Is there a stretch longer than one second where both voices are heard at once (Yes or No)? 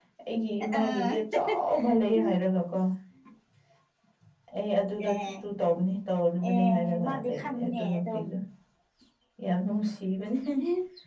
Yes